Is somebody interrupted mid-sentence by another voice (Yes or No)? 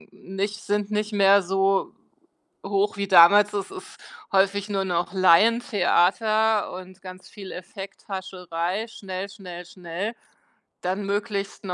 No